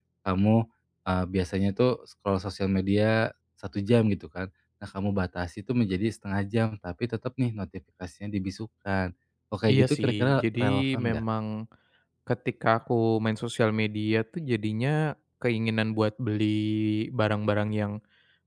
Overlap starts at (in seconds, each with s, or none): 9.7 s